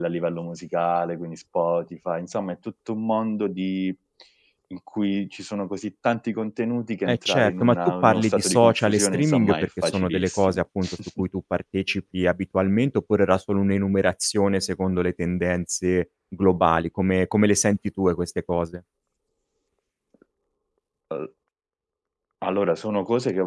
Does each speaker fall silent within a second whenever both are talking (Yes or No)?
No